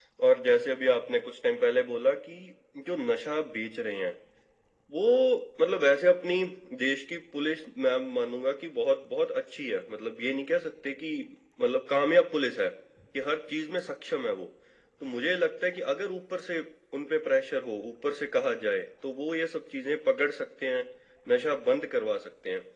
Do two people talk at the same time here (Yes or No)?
No